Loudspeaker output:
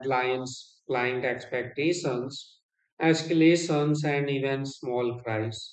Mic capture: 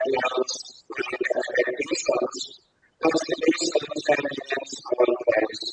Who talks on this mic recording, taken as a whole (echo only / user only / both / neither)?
echo only